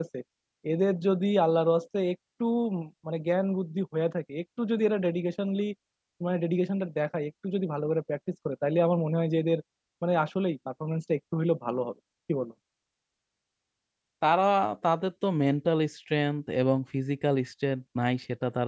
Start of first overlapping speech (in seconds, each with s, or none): none